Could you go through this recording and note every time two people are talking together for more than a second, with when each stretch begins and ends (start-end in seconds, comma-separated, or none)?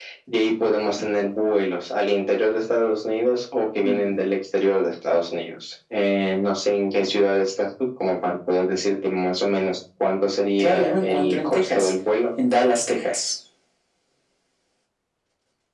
10.6-11.9